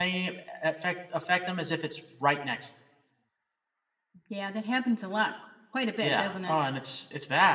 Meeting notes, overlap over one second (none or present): none